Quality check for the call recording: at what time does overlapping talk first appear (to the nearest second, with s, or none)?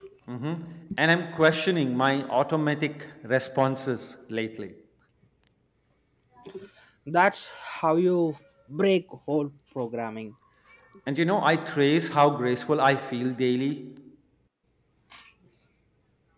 none